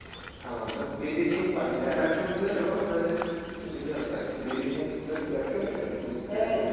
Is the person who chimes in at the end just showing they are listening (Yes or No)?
No